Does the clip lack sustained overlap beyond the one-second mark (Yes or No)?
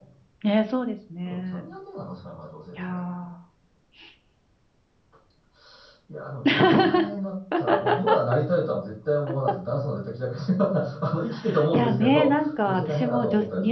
No